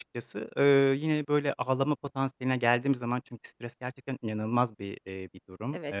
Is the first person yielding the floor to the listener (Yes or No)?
No